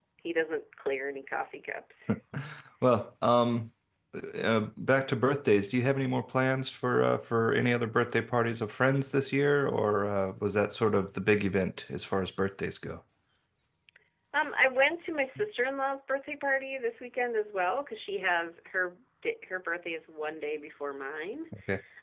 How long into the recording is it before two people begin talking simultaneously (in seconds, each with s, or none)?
none